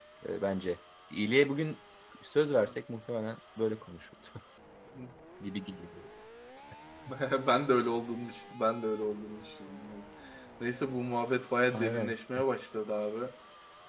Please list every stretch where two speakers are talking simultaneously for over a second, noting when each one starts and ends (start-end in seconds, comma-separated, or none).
none